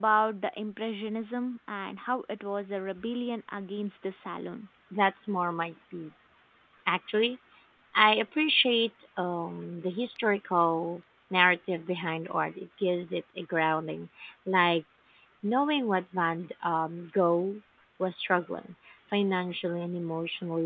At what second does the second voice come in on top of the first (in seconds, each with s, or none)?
none